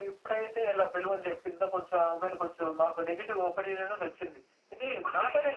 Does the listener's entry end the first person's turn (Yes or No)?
No